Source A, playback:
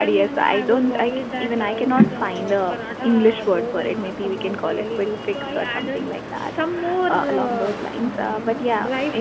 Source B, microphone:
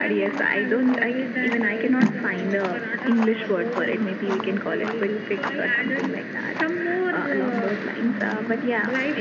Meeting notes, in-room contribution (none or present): none